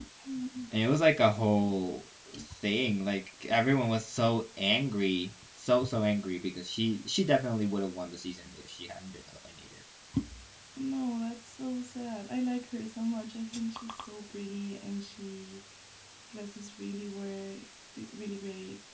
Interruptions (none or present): none